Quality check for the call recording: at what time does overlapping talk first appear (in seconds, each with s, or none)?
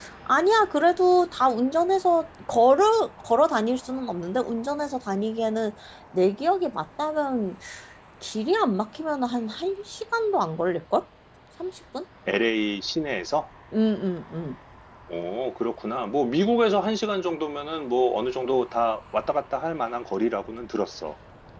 none